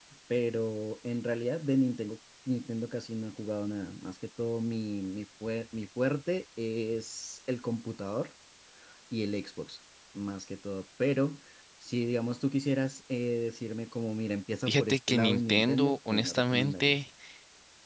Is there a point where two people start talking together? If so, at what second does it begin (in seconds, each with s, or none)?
14.7 s